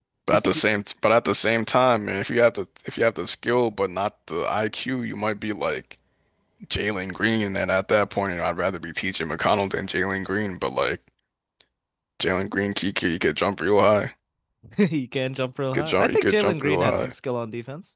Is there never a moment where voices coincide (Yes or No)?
No